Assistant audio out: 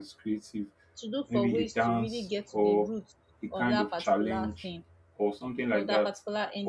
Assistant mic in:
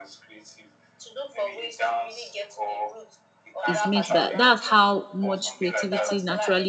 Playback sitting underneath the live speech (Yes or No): Yes